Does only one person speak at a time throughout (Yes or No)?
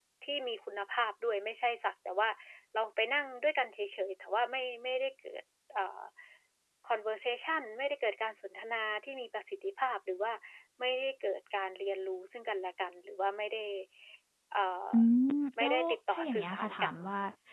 No